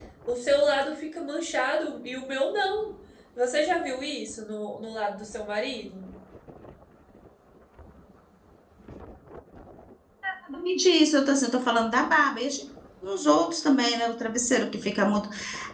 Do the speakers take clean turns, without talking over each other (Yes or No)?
Yes